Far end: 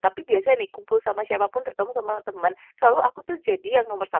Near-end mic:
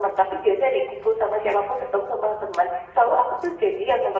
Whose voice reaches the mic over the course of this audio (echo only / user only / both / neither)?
echo only